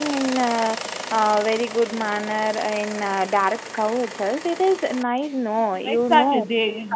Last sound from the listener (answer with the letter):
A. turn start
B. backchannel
A